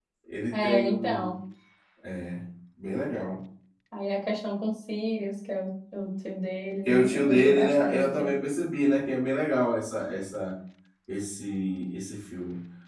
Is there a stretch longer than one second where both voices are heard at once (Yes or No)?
Yes